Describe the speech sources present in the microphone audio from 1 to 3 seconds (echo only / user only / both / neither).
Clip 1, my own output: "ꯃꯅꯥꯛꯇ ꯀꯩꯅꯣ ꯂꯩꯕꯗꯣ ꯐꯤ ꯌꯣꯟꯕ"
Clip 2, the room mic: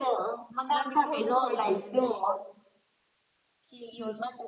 both